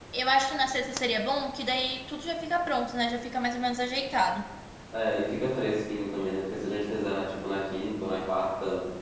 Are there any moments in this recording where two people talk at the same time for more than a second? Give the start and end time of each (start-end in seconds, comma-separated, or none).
none